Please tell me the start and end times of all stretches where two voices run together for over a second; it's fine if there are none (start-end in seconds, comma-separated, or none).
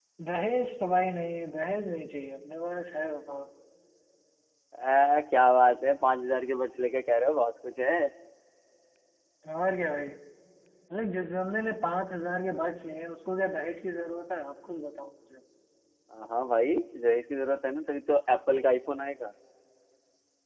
none